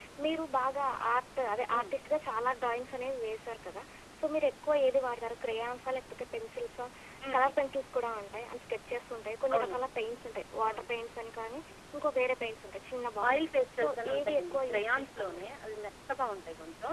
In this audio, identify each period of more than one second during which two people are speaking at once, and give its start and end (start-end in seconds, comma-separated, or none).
13.3-15.5